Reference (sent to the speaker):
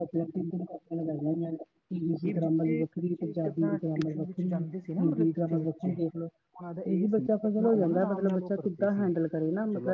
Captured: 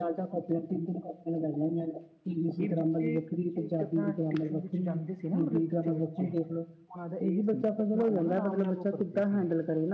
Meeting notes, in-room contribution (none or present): none